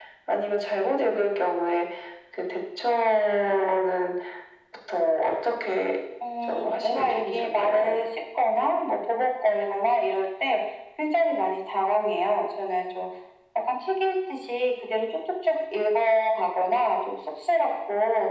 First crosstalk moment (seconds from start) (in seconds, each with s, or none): 6.4 s